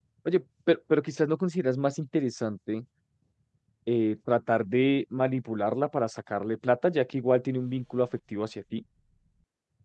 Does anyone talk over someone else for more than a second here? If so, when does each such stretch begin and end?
none

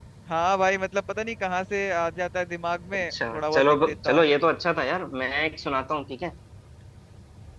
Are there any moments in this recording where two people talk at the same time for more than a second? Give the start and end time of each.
3.0-4.4

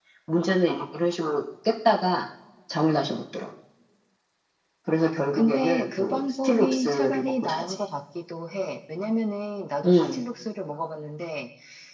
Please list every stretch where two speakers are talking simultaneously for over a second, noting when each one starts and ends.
5.3-7.7

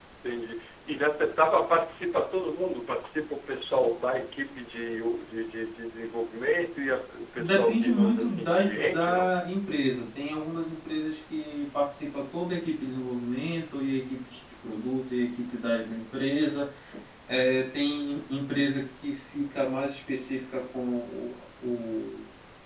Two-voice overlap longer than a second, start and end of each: 7.4-9.3

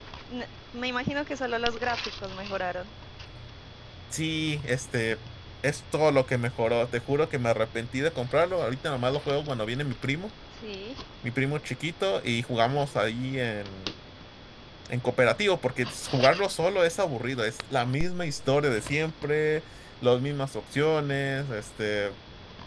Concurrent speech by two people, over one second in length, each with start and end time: none

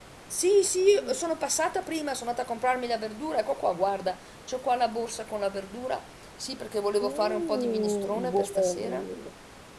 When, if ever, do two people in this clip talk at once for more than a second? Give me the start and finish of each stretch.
7.0-8.9

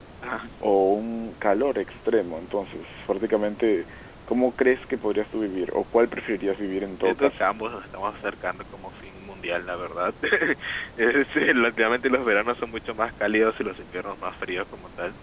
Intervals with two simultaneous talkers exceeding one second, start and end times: none

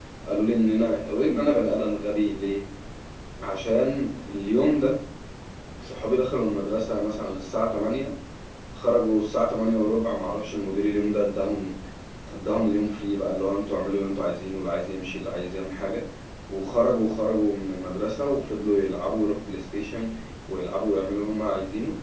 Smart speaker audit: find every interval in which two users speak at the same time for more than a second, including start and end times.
none

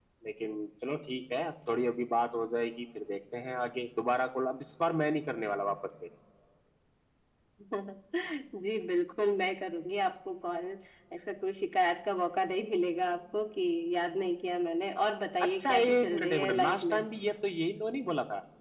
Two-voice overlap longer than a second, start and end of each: 15.4-17.0

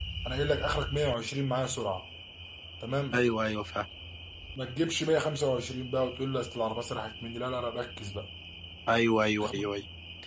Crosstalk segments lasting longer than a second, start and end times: none

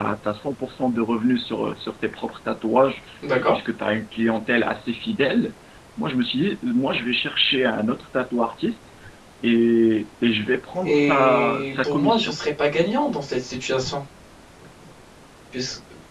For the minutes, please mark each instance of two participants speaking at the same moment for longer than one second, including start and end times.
10.8-12.3

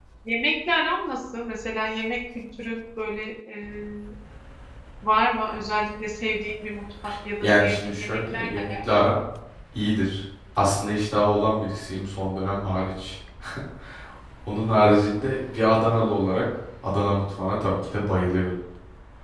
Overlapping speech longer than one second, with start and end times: 7.4-8.7

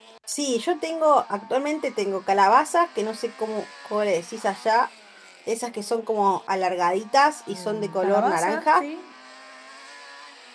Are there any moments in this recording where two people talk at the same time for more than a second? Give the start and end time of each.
7.5-8.8

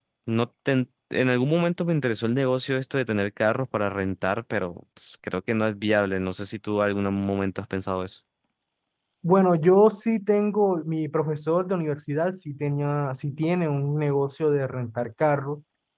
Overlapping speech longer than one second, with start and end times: none

